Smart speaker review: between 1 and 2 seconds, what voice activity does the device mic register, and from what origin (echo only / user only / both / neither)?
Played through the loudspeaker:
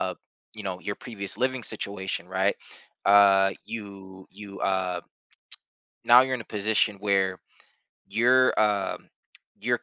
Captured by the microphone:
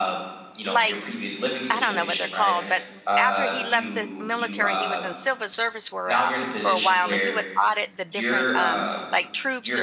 both